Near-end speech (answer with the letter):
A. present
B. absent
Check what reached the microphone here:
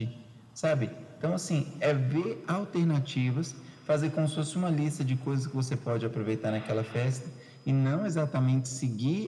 B